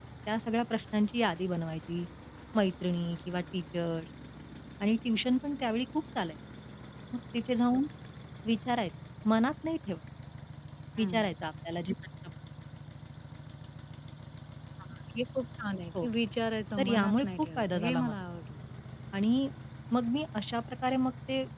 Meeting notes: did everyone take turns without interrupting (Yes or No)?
No